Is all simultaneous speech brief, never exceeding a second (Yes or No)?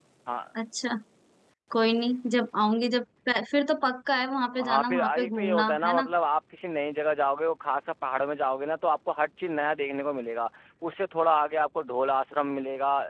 No